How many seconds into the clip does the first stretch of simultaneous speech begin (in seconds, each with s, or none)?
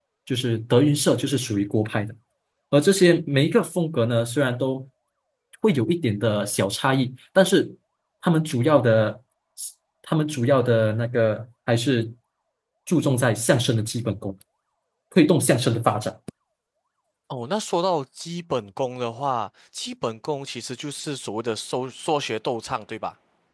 none